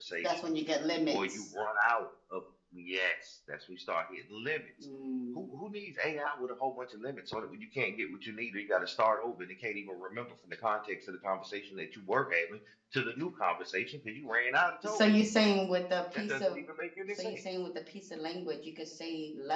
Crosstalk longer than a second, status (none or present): none